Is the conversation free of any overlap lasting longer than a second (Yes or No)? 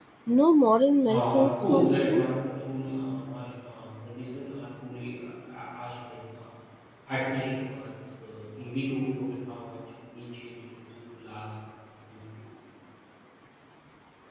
No